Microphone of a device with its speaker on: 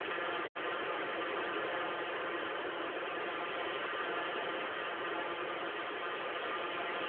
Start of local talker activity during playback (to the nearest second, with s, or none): none